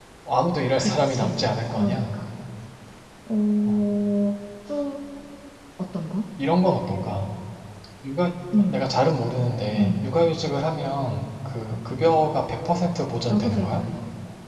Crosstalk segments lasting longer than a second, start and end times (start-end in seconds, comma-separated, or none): 0.8-2.0